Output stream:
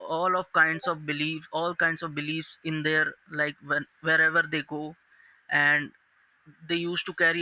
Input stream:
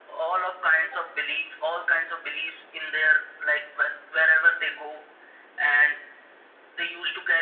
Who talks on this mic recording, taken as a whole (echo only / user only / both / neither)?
echo only